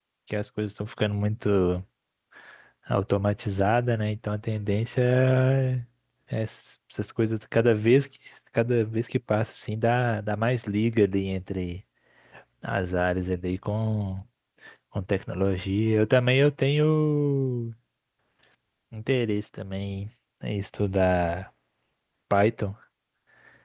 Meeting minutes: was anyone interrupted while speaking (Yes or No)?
No